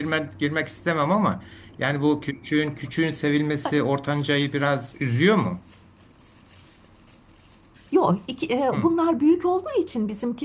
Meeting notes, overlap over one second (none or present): none